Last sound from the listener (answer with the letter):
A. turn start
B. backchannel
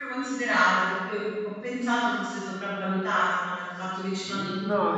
A